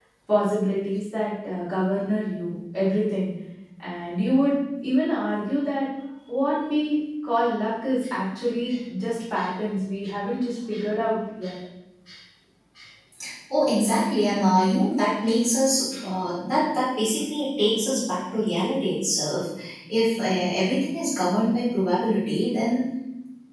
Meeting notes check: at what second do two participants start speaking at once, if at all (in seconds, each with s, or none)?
none